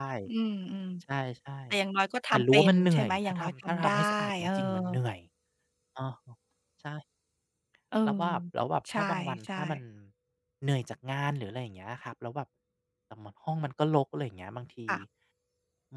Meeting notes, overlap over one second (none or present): present